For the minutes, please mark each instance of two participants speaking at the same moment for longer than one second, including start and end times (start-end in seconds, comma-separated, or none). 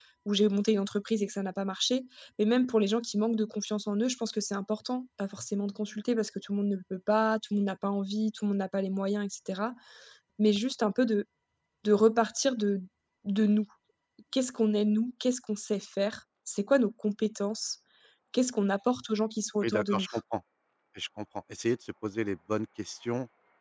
none